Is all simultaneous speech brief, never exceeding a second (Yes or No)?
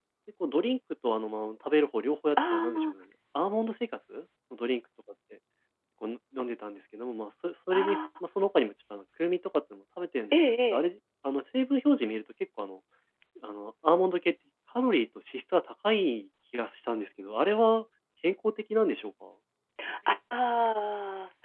Yes